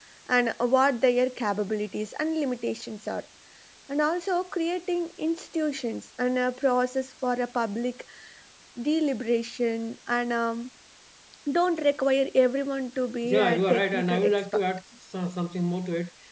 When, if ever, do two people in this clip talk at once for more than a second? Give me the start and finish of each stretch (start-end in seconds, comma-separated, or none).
13.2-14.6